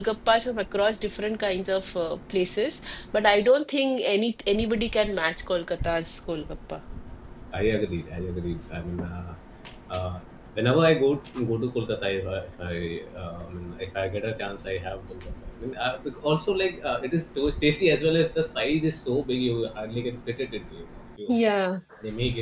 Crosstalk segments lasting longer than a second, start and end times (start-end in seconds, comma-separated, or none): none